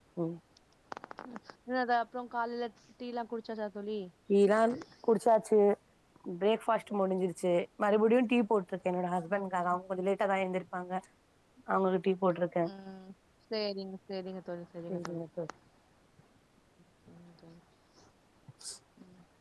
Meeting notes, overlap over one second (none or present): none